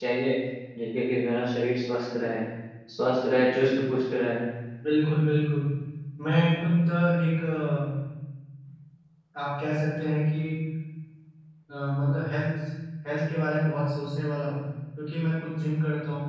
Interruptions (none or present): none